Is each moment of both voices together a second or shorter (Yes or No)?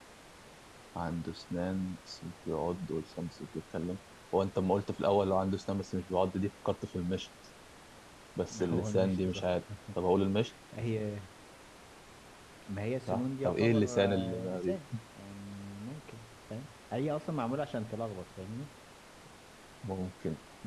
No